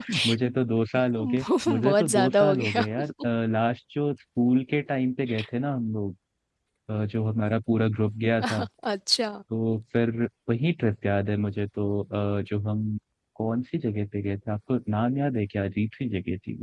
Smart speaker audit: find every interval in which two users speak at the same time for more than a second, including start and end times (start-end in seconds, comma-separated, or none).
1.2-2.8